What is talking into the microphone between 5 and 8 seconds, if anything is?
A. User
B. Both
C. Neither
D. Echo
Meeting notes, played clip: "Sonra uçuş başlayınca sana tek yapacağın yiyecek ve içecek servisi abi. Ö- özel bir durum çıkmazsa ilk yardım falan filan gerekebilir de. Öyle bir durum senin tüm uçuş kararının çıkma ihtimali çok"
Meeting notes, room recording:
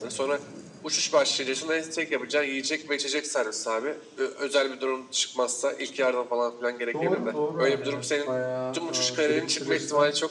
B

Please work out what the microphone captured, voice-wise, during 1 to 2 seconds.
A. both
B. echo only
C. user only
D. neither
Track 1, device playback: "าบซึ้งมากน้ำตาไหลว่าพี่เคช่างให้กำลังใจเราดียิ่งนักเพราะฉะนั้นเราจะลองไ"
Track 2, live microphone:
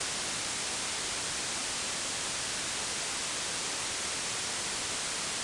D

